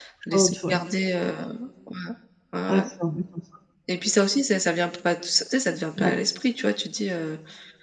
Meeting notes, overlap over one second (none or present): none